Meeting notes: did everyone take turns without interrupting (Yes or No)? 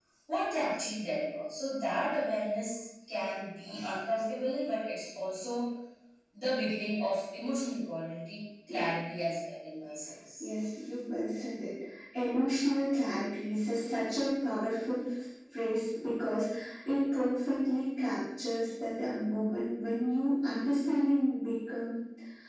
Yes